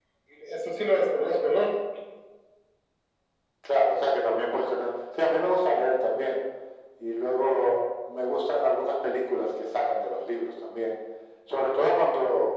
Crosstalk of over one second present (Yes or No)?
No